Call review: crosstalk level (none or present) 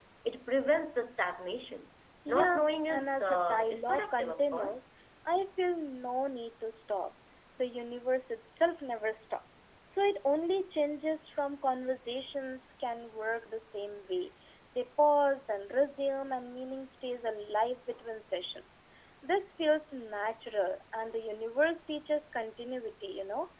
present